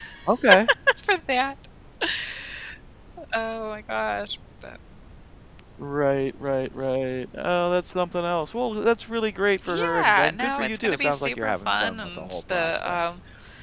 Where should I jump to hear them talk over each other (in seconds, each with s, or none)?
9.7 s